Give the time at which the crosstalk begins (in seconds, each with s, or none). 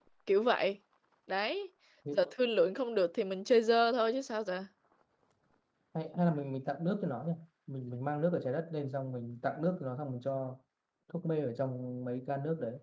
none